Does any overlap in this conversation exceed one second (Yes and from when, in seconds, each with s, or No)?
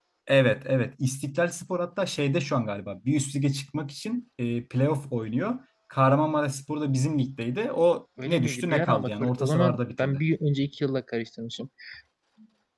Yes, from 8.2 s